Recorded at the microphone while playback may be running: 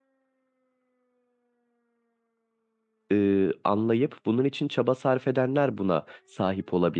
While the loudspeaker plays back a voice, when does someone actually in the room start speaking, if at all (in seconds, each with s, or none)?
3.1 s